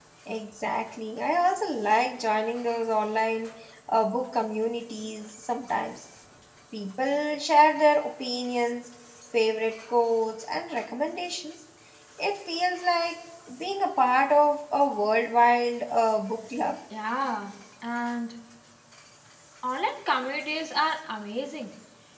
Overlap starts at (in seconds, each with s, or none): none